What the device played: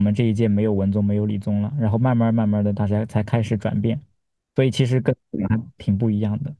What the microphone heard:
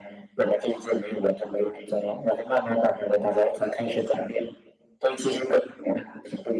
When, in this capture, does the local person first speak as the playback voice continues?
none

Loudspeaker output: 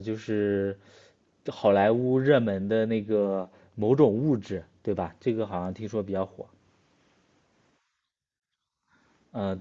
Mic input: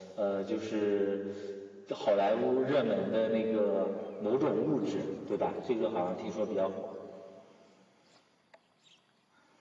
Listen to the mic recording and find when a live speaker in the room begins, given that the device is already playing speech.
none

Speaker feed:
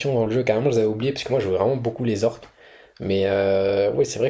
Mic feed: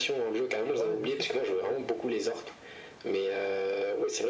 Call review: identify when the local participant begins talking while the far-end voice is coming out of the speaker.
0.7 s

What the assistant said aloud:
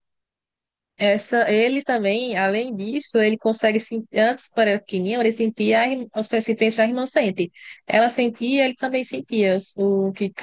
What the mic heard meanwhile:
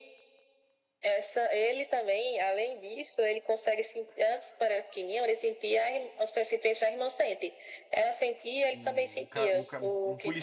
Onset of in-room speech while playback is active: 8.7 s

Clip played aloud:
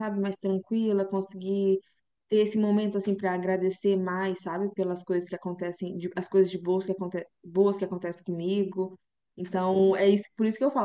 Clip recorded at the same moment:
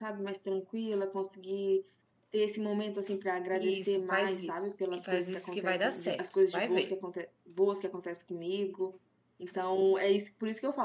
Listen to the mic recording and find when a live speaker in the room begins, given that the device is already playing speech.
3.5 s

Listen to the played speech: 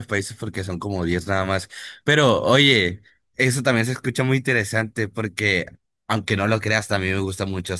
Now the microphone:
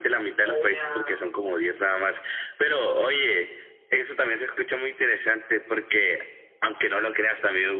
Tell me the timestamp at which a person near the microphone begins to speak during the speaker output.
0.4 s

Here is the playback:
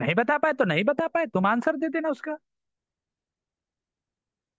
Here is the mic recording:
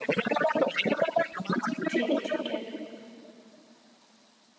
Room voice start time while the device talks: 1.9 s

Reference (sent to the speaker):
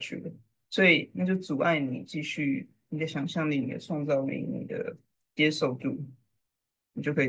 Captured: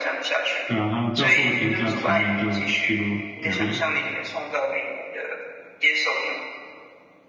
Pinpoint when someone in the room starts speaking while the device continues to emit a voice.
0.7 s

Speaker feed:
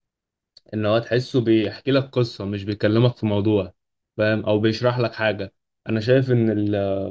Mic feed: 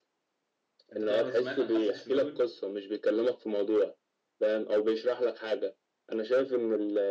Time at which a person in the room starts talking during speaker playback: 0.9 s

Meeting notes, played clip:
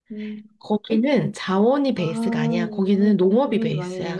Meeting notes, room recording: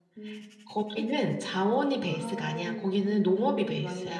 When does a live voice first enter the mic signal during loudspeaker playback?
none

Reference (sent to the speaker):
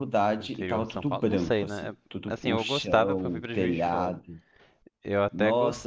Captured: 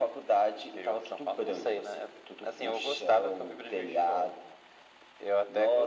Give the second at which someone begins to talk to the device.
none

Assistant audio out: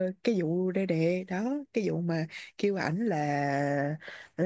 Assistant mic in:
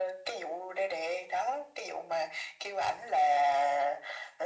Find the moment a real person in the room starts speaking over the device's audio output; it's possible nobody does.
none

